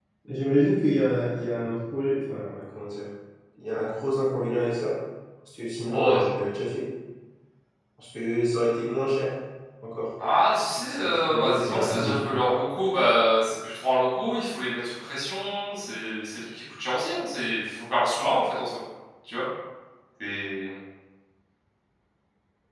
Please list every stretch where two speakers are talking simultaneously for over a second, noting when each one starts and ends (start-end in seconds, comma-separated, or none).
10.7-12.1